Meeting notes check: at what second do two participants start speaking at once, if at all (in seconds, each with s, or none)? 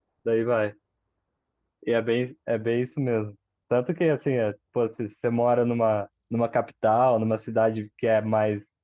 none